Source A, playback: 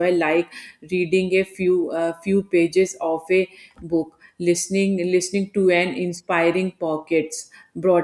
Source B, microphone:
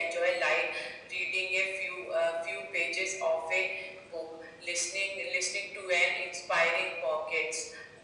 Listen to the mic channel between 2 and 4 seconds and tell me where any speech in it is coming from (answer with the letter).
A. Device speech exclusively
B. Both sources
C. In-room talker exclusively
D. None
A